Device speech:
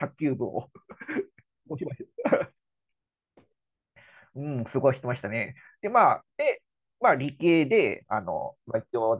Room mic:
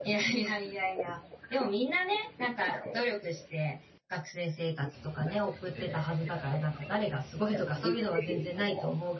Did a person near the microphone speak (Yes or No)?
Yes